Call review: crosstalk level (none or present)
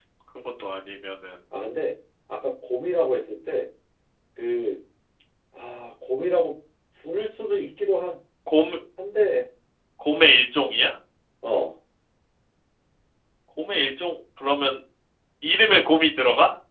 none